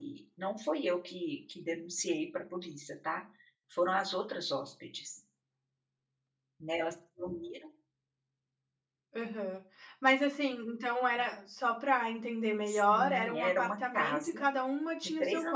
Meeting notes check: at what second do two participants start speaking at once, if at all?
12.7 s

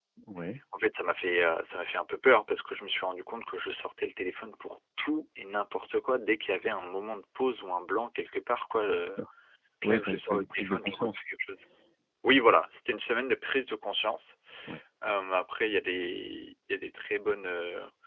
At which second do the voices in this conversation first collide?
9.8 s

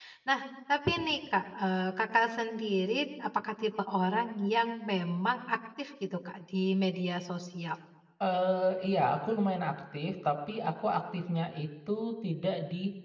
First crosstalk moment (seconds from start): none

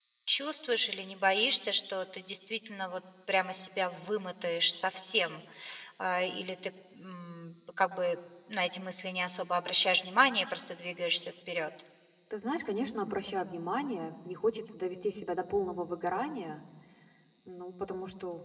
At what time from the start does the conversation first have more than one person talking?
none

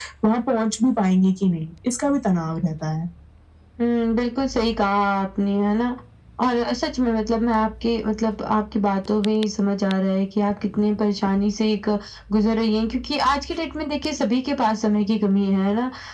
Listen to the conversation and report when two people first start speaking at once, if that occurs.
none

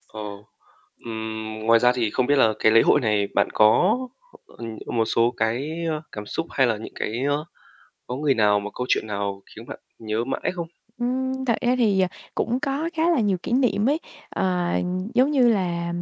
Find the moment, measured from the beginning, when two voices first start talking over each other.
none

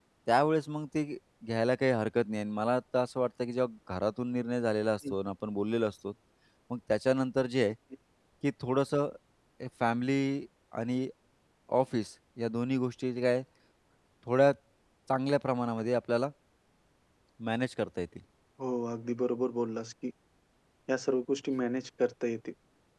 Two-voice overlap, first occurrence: none

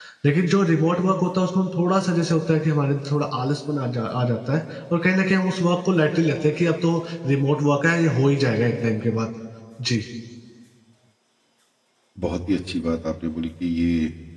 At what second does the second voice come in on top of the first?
none

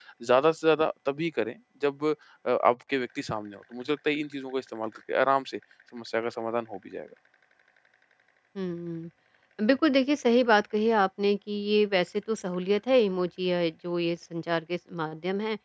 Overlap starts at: none

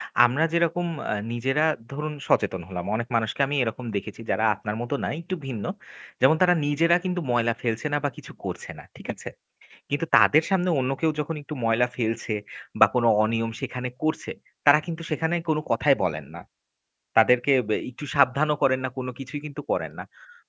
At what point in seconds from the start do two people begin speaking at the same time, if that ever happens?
none

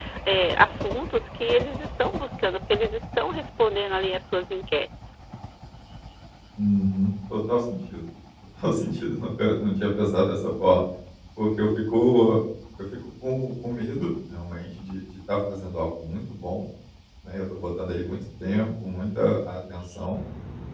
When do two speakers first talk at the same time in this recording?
none

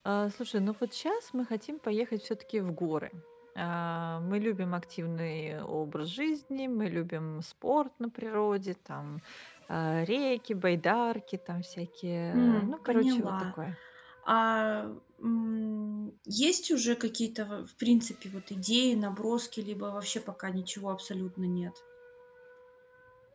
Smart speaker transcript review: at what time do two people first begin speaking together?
12.3 s

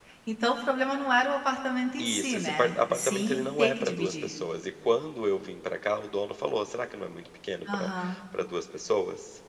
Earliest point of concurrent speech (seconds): 2.0 s

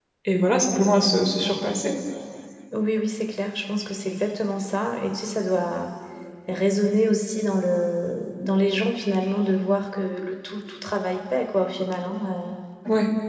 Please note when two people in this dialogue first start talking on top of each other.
none

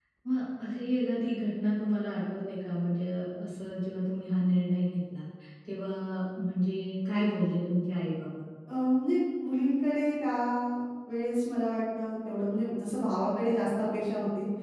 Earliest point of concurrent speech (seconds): none

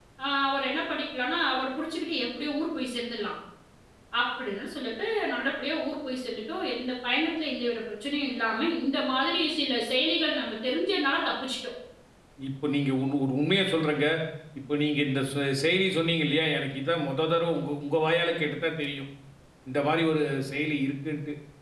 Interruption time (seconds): none

